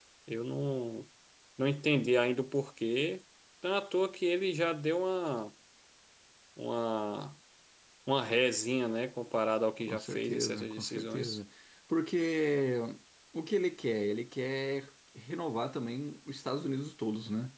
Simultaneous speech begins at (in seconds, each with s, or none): 9.9 s